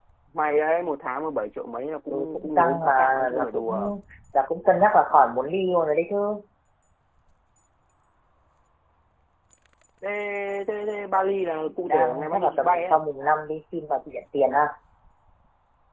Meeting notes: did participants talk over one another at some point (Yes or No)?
Yes